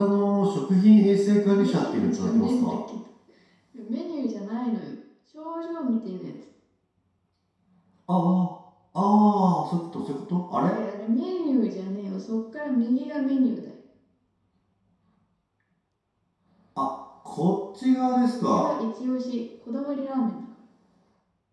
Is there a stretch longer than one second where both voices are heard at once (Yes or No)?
Yes